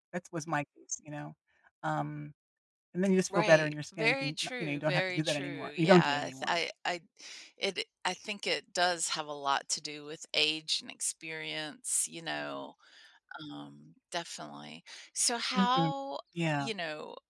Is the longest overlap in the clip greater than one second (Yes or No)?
Yes